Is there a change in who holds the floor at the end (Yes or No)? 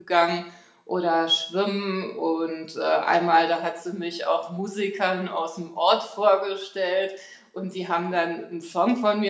No